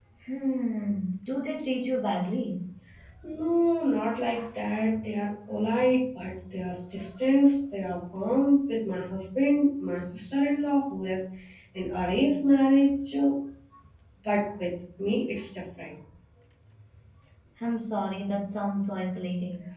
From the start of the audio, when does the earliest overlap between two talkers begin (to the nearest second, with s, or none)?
none